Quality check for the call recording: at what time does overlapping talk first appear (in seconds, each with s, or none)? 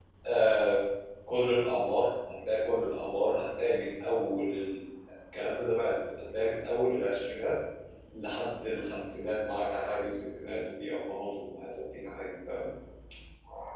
none